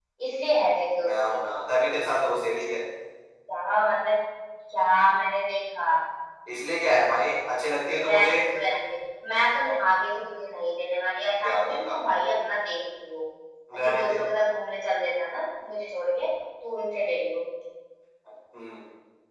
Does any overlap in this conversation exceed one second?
No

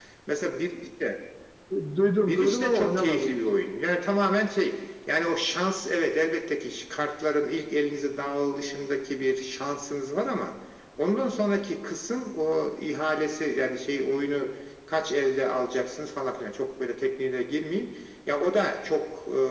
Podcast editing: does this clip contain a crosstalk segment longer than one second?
Yes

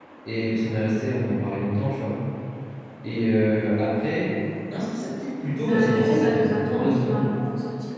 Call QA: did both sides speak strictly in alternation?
No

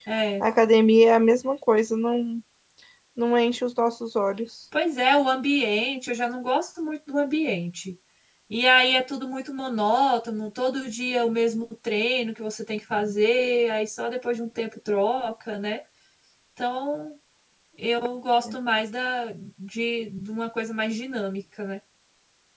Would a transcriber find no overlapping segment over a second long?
Yes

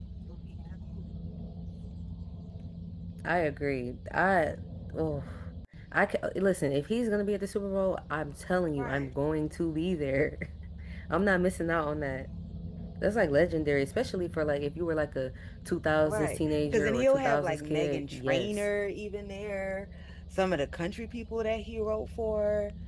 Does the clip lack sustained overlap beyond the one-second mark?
No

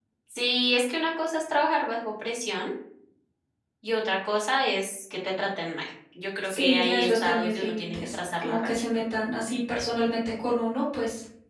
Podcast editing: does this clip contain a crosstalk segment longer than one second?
Yes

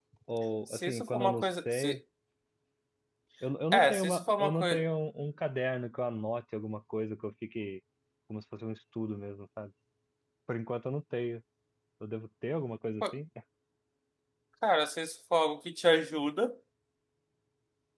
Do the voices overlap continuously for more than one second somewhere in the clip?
Yes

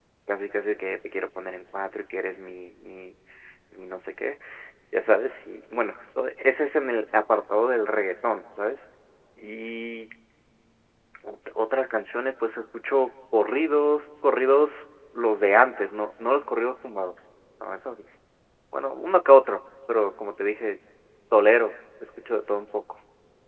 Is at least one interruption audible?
No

